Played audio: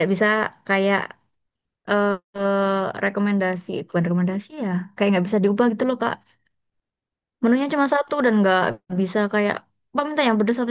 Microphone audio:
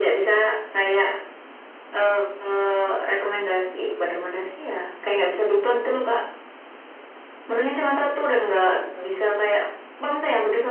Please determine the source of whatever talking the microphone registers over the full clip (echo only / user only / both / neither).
echo only